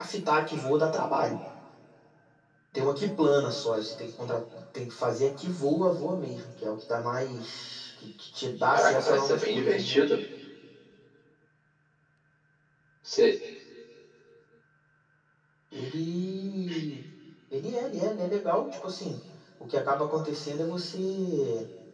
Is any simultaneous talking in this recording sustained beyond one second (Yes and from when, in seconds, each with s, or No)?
Yes, from 8.7 s